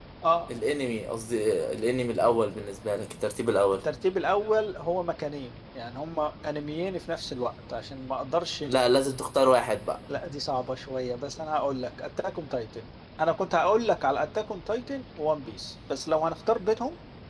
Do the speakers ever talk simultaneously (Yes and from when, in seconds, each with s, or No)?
No